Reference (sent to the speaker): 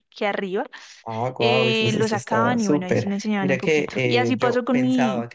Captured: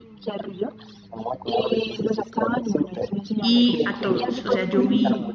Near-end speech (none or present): present